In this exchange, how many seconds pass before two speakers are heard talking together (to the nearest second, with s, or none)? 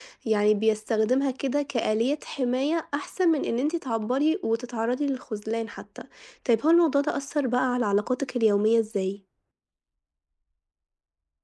none